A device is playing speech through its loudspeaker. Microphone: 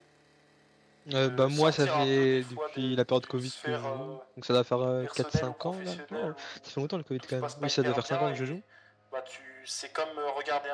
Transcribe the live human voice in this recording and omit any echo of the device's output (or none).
Euh, bah, moi, ça fait depuis la période Covid que je joue. Donc, ça doit faire euh, 4-5 ans, là. Non, ça fait longtemps le Covid quand même. Oui, ça doit faire 5 ans que je joue.